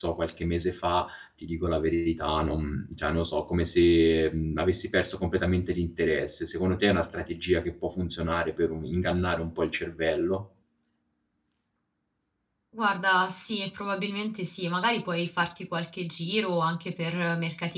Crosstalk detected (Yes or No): No